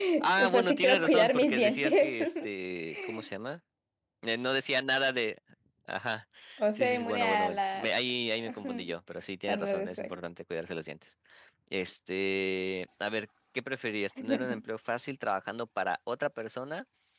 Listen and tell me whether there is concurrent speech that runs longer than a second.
Yes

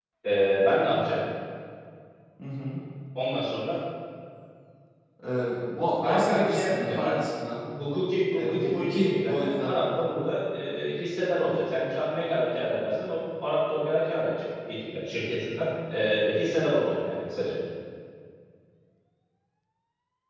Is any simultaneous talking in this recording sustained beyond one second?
Yes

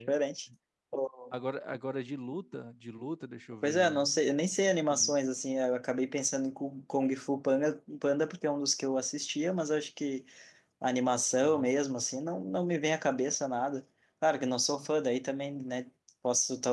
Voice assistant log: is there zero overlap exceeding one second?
Yes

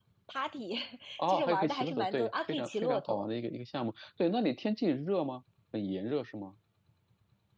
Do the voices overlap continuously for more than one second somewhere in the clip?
Yes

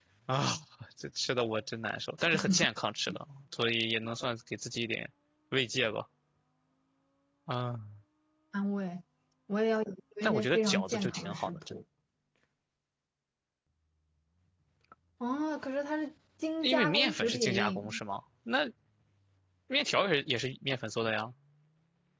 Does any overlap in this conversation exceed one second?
Yes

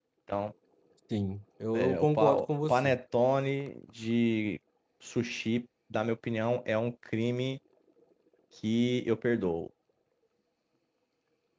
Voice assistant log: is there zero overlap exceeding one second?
No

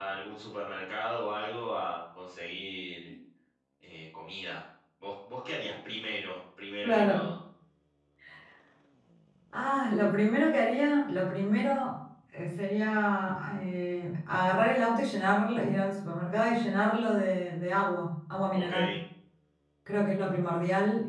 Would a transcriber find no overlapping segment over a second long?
Yes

